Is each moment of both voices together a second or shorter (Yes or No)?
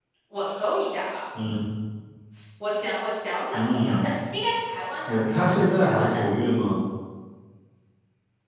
No